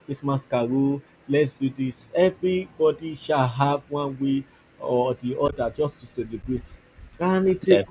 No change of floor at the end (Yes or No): Yes